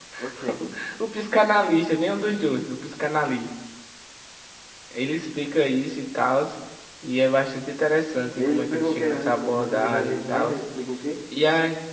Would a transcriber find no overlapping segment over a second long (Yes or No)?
No